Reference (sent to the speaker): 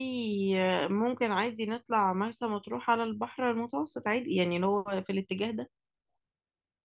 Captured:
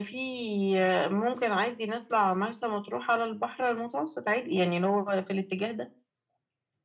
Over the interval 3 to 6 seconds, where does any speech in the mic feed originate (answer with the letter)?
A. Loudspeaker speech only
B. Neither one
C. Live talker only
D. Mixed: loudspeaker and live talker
A